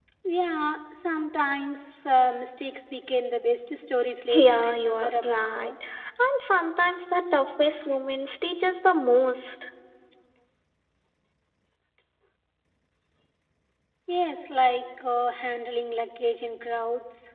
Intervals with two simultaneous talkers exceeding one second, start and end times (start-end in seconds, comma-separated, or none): 4.3-5.7